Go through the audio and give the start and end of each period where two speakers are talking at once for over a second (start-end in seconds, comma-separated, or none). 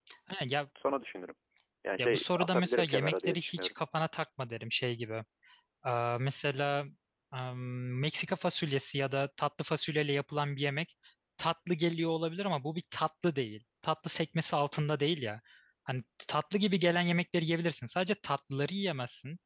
2.0-3.7